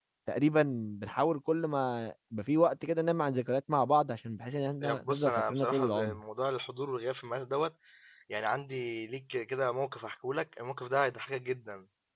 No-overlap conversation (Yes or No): No